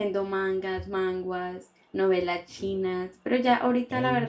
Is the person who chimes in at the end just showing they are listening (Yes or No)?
Yes